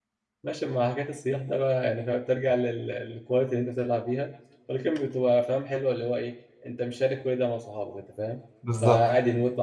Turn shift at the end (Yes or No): No